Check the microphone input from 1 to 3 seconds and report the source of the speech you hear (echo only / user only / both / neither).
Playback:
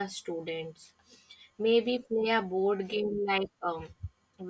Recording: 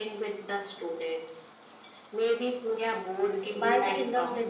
echo only